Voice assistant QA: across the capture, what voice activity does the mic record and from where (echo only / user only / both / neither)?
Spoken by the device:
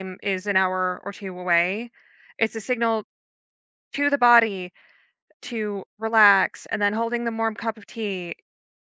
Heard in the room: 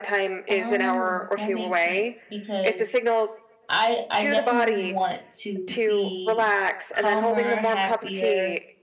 both